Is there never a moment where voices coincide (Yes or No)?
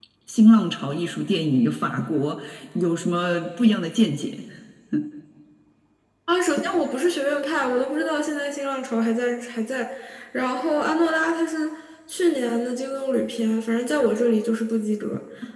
Yes